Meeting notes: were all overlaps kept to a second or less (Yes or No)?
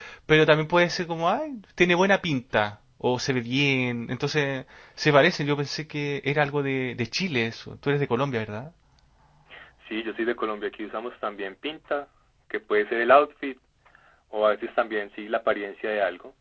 Yes